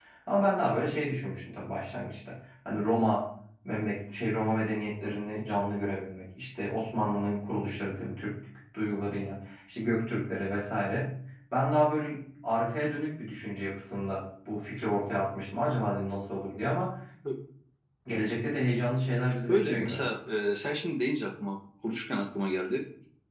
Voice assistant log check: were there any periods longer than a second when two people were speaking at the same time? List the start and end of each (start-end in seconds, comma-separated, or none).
none